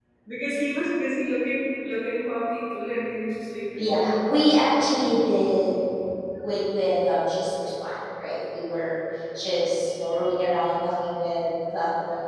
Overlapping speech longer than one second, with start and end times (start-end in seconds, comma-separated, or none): 3.8-5.0